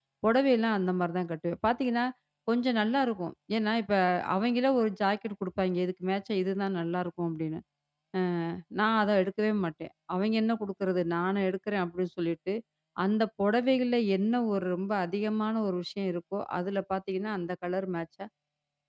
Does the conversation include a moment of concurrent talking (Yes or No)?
No